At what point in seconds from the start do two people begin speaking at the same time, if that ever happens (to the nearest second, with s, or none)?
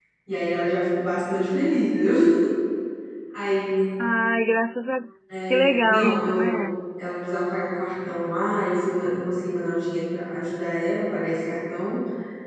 5 s